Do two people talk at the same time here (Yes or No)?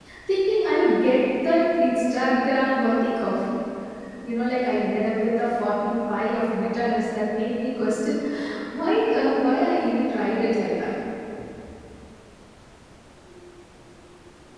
No